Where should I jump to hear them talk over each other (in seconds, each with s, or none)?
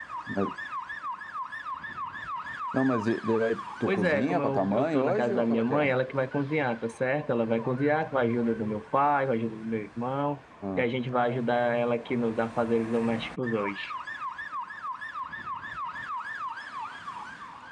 3.9 s